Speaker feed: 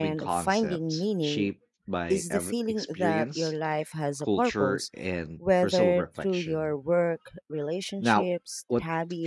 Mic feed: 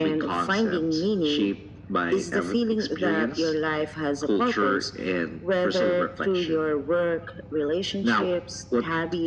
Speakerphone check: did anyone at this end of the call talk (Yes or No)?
No